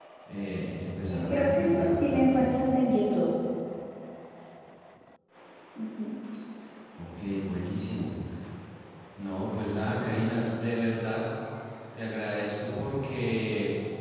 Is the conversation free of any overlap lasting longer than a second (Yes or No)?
No